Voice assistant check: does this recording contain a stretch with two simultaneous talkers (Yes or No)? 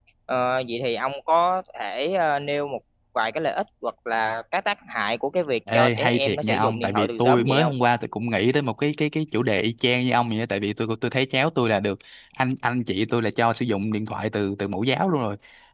Yes